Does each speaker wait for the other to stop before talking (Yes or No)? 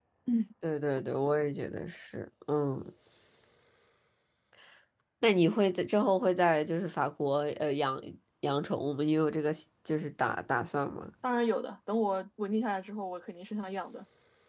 Yes